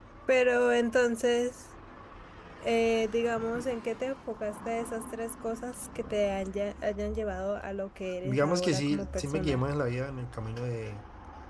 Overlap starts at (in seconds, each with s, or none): 8.2 s